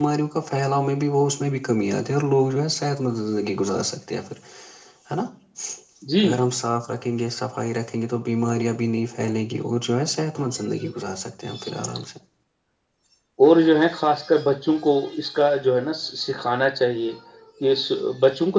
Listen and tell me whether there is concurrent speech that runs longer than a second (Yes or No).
No